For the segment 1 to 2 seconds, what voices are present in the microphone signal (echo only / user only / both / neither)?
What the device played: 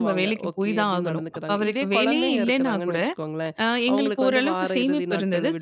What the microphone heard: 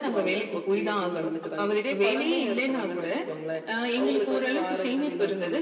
echo only